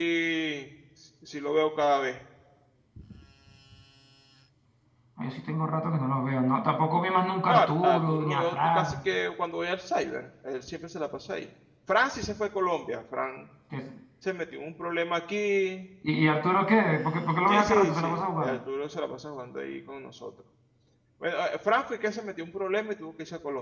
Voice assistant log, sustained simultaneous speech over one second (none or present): present